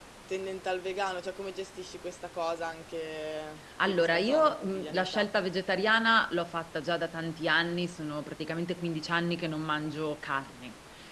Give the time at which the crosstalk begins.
3.8 s

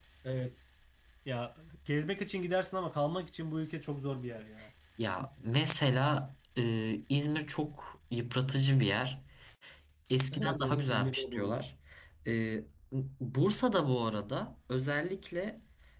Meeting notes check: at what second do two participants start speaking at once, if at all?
10.3 s

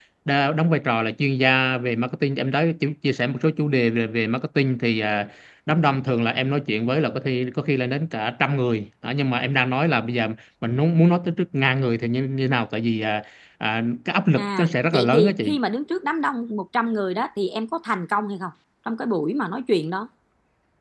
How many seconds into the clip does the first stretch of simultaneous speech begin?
14.3 s

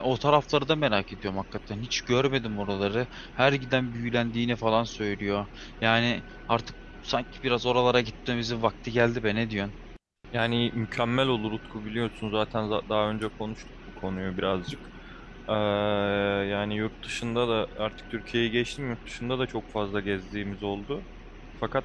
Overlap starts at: none

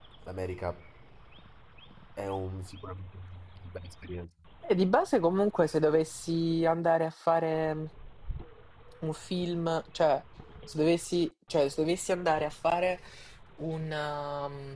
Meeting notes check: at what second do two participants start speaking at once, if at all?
none

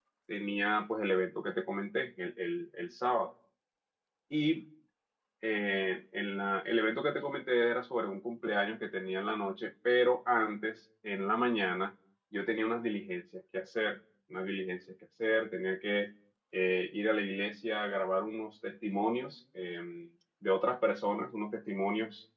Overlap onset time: none

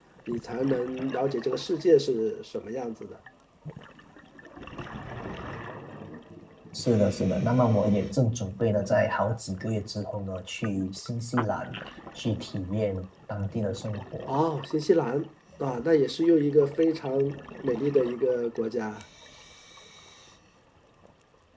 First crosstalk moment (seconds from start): none

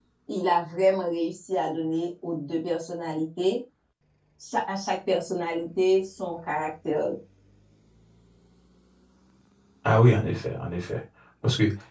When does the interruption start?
none

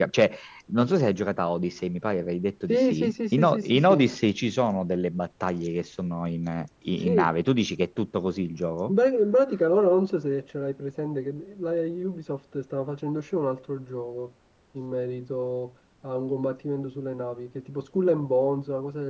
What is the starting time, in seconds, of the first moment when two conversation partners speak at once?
2.7 s

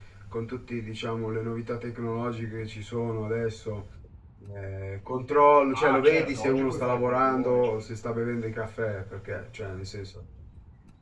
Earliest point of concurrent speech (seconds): 5.7 s

